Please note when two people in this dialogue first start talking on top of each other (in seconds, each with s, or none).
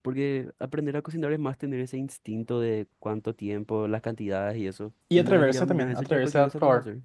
5.1 s